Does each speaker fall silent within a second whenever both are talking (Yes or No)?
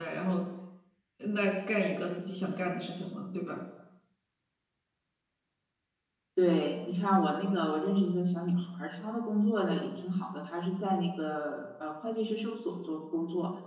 Yes